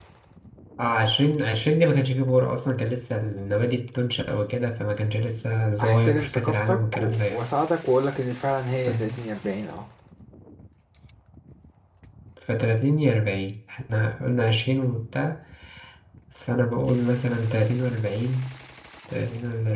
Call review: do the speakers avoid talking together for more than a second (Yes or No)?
No